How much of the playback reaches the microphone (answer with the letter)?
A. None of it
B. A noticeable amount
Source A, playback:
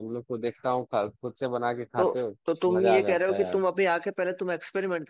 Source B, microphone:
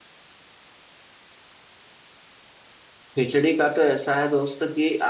A